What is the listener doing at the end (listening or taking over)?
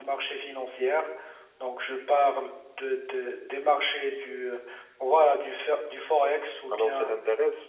taking over